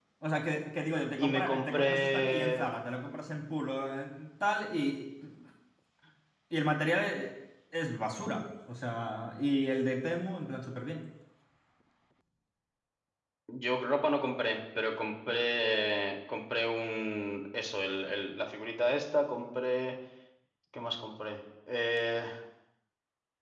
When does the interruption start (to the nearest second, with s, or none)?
1 s